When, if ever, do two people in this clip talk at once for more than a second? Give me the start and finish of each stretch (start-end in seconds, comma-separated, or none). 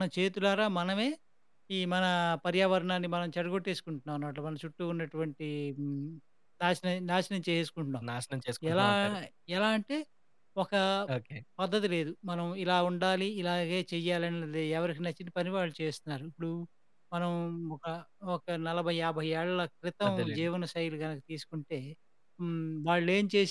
none